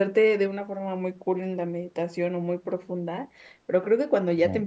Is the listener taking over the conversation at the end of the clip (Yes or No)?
No